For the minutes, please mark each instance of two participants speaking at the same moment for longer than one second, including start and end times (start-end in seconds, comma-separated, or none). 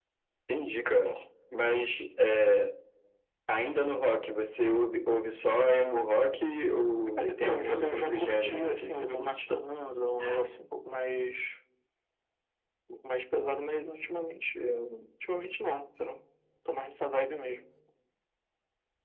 7.2-9.3